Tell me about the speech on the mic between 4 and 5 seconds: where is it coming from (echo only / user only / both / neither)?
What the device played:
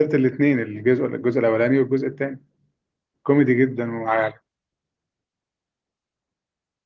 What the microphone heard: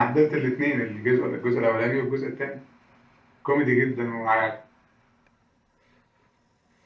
echo only